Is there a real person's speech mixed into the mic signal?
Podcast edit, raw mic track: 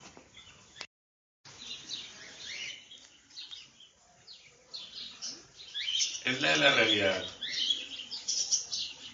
Yes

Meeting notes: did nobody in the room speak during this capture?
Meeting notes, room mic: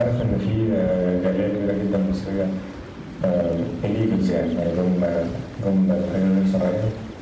Yes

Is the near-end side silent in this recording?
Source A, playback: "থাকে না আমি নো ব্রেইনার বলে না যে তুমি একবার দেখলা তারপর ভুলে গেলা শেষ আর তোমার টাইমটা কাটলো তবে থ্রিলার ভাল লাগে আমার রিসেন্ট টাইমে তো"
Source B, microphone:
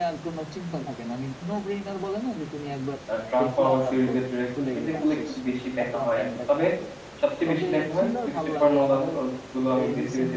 No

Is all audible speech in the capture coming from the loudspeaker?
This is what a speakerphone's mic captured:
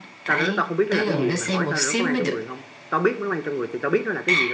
No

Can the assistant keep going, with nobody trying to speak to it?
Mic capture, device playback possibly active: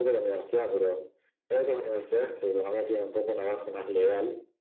Yes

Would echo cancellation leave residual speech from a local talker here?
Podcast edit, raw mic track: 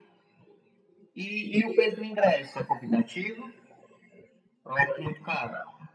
No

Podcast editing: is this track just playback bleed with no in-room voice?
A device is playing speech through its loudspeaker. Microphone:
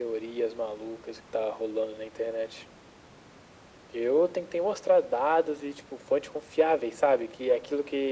Yes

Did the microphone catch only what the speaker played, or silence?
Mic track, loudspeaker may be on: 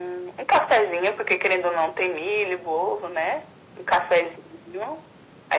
Yes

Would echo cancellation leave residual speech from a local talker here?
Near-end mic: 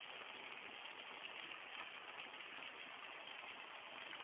No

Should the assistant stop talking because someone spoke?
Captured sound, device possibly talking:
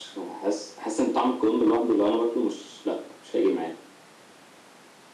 No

